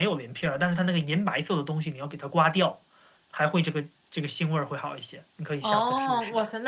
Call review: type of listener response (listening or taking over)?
taking over